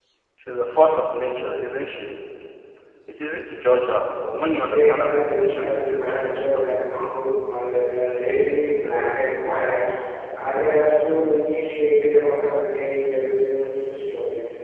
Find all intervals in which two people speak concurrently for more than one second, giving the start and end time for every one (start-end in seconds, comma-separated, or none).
4.6-6.8